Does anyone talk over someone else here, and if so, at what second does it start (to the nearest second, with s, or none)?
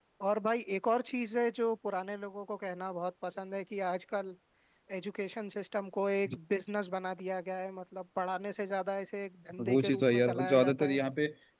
10 s